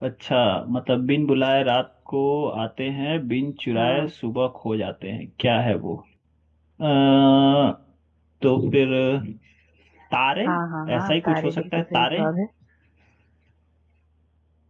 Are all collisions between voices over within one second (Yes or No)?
No